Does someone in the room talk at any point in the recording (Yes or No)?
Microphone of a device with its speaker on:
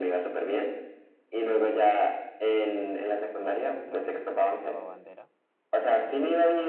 Yes